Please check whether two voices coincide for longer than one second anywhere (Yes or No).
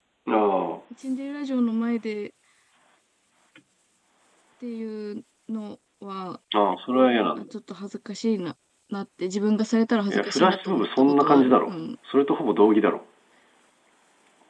Yes